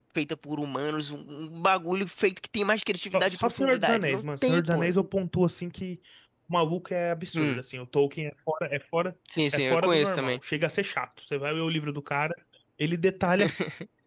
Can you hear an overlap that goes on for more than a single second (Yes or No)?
Yes